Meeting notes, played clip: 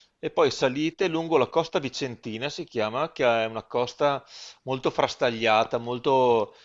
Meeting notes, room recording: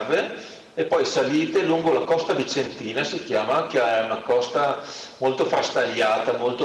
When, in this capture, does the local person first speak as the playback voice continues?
none

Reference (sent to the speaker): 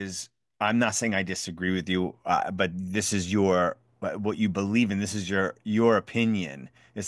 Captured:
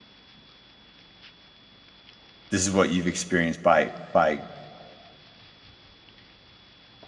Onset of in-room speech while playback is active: 2.5 s

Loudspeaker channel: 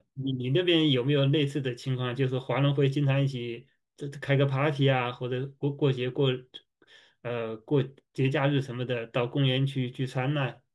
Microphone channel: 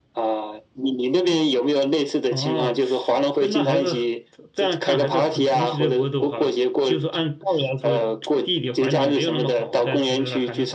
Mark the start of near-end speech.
2.3 s

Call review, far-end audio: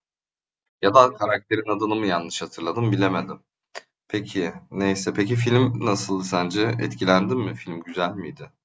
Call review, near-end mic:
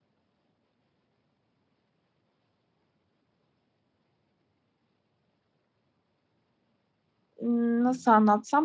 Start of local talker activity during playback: 7.4 s

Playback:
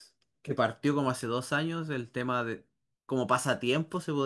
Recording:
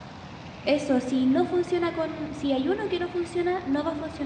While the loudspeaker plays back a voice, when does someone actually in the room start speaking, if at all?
0.6 s

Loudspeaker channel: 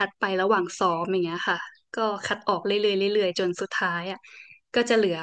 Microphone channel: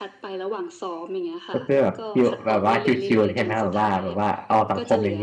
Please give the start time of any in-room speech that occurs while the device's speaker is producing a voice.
1.5 s

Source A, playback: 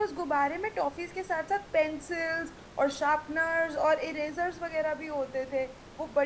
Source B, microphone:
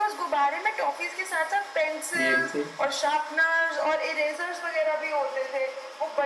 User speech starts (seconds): 2.2 s

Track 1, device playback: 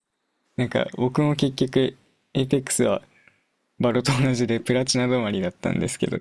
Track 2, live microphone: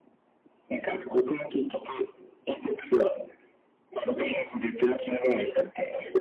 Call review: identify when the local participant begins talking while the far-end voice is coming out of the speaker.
none

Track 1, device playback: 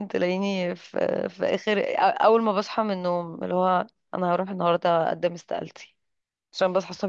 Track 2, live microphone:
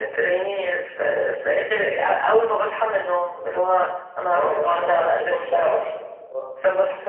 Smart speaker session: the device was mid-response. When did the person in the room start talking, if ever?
4.3 s

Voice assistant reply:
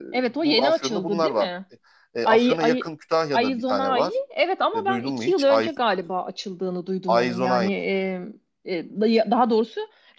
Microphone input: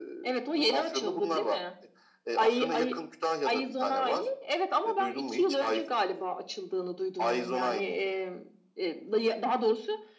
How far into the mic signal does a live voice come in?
none

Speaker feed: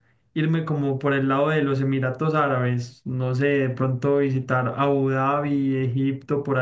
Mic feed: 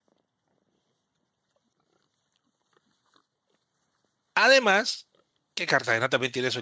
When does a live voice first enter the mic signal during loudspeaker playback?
4.3 s

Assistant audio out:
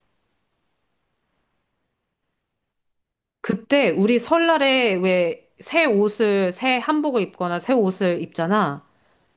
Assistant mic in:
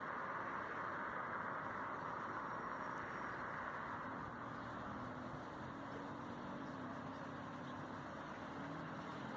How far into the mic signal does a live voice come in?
none

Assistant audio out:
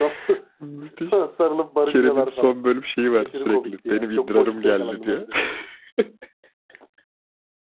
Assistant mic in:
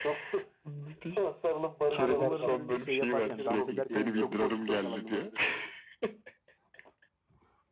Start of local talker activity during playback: 1.9 s

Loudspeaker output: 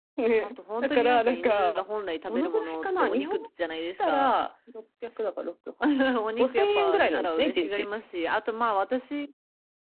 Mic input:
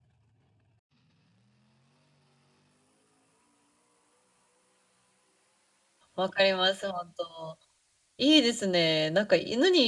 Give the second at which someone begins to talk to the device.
6.2 s

